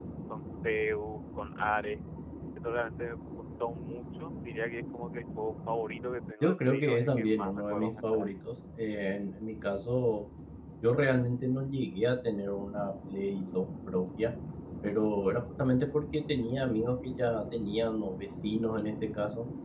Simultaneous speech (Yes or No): Yes